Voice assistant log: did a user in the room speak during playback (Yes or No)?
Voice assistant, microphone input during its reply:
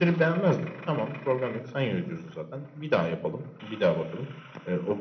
No